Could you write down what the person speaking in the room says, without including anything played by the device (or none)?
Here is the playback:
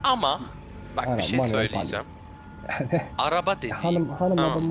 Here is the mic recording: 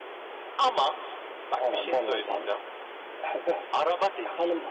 none